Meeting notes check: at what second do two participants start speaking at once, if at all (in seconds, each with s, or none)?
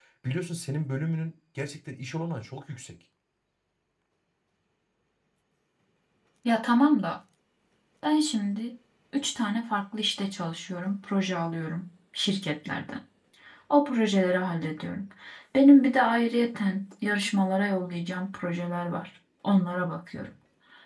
none